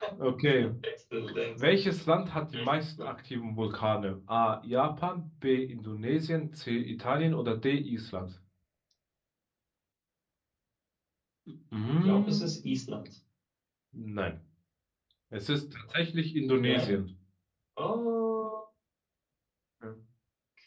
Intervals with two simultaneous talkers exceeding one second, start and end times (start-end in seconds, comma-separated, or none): none